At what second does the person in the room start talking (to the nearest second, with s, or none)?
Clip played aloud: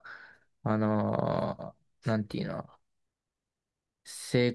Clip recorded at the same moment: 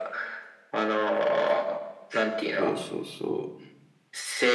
3 s